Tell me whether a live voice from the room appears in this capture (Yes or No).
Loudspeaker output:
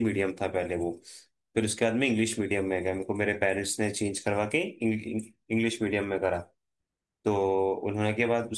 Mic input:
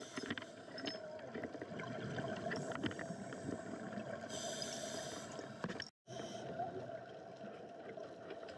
No